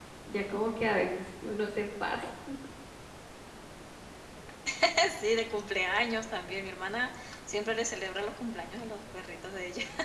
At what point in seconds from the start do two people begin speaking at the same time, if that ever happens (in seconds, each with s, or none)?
none